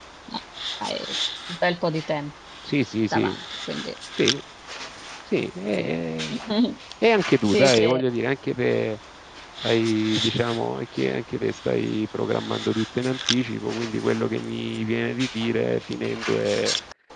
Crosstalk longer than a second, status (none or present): none